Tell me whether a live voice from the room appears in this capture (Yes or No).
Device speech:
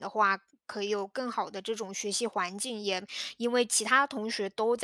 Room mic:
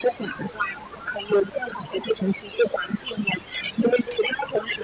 No